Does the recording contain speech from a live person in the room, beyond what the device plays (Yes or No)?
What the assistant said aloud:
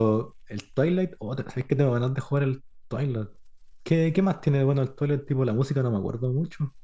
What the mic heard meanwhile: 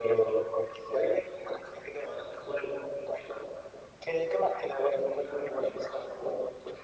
No